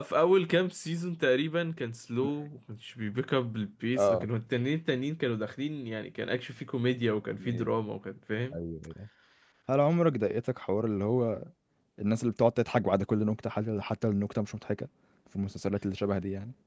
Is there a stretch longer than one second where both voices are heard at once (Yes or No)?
No